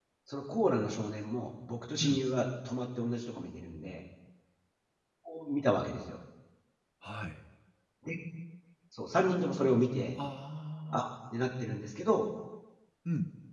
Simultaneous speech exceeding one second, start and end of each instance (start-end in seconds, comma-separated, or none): none